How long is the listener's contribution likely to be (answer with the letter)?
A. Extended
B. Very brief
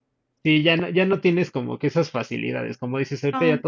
B